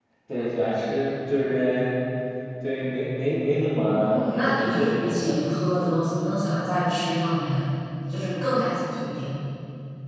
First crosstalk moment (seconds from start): 3.8 s

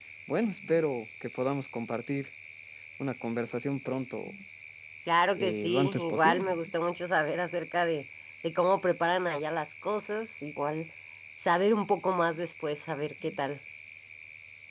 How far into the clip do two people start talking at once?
5.4 s

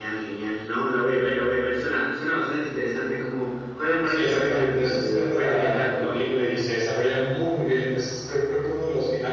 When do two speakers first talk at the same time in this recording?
4.1 s

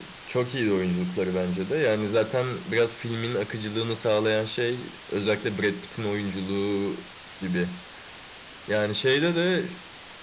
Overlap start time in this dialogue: none

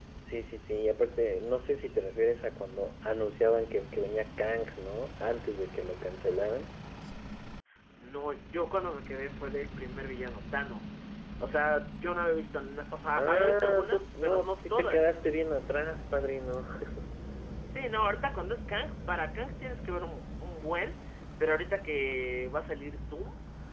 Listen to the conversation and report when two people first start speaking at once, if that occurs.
13.2 s

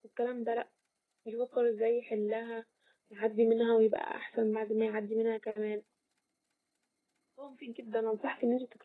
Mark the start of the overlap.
none

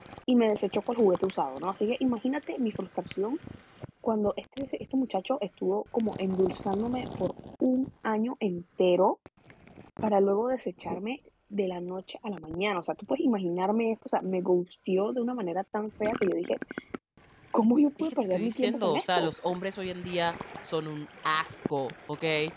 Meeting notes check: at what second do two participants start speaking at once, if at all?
18.0 s

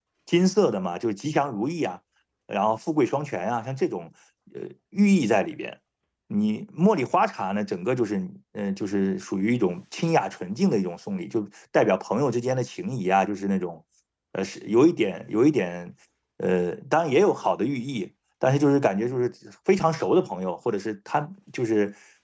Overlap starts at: none

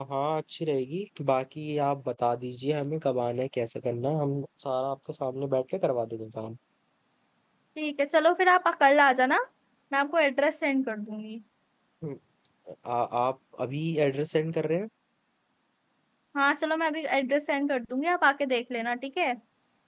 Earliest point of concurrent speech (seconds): none

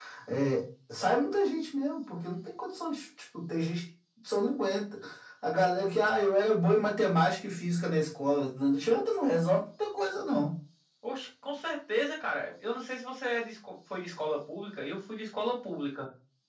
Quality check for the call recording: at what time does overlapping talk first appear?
none

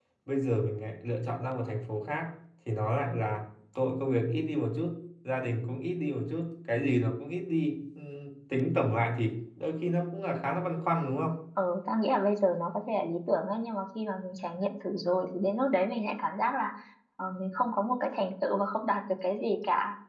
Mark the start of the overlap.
none

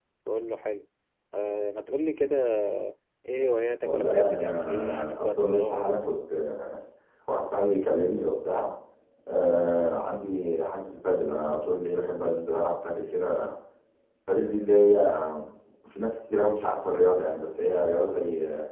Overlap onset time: 3.8 s

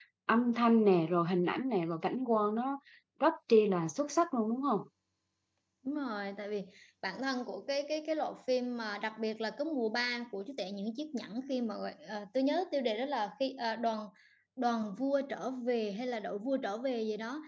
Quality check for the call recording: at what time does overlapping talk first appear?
none

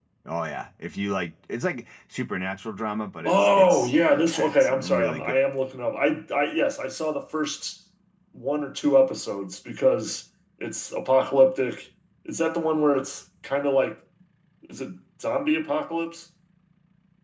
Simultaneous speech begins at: 3.2 s

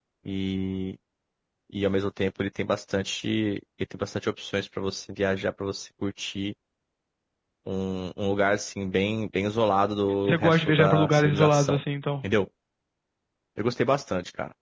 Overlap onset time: 10.2 s

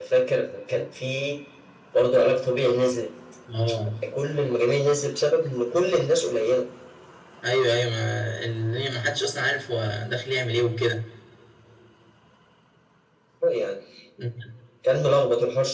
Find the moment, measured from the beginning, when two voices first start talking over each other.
none

